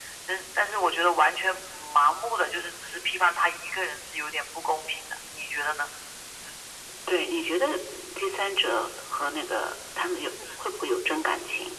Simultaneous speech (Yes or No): No